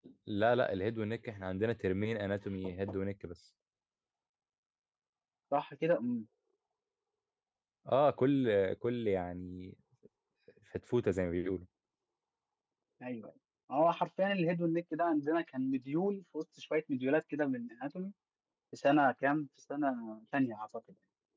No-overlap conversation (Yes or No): Yes